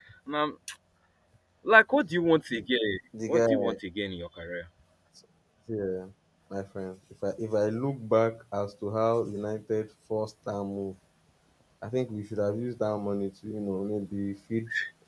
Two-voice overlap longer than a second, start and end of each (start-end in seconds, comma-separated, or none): none